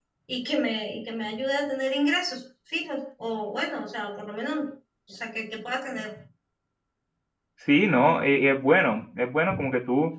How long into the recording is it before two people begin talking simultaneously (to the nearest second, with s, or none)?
none